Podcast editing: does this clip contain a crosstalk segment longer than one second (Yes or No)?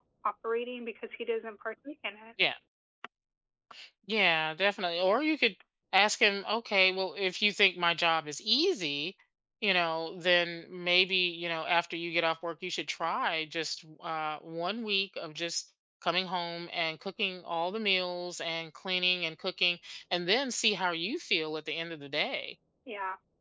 No